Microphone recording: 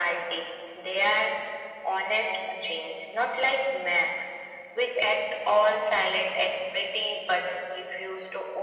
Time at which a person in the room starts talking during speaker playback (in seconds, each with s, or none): none